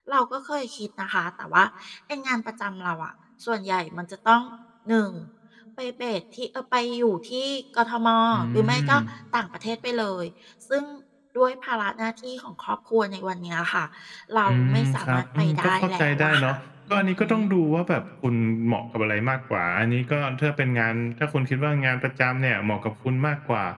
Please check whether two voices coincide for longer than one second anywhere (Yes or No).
Yes